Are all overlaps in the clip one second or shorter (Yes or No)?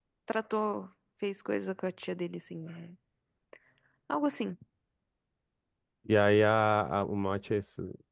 Yes